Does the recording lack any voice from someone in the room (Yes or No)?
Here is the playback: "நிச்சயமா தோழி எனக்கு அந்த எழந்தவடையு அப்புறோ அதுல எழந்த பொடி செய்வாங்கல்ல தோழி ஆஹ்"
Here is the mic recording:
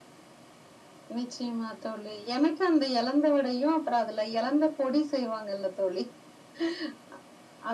Yes